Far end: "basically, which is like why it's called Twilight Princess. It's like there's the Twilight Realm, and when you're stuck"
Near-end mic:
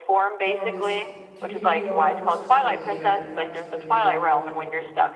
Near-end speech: present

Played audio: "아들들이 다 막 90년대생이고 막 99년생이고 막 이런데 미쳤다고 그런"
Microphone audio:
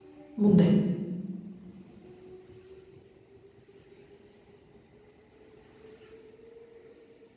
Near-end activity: present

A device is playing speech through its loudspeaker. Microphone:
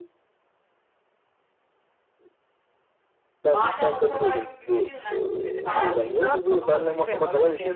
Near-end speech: present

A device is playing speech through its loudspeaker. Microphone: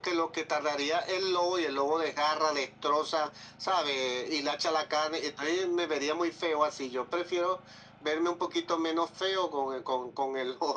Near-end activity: none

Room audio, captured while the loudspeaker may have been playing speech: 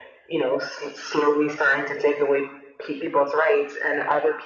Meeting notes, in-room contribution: none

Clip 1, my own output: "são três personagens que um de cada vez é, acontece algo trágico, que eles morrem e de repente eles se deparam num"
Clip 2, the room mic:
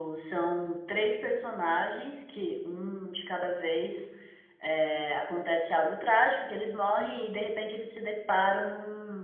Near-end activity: none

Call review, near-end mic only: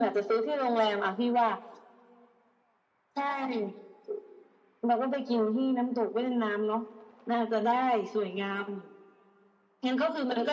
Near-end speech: none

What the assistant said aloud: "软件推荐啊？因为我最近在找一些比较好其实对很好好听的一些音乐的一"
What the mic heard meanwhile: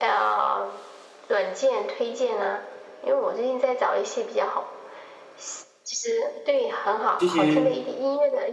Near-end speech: present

